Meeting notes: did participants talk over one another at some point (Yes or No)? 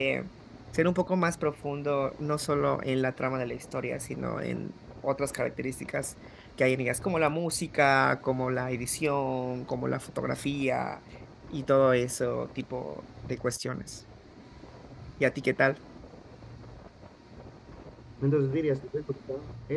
No